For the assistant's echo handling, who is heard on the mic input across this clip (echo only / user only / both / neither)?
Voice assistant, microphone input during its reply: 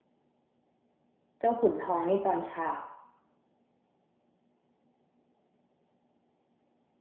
user only